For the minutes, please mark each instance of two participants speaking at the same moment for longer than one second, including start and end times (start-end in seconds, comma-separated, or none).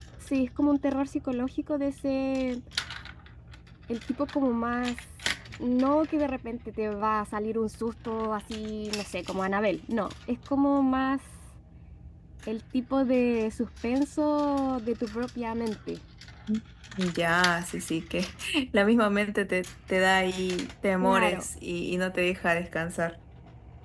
none